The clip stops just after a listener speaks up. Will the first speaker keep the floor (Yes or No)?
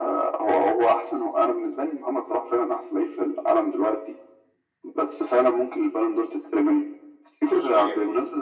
Yes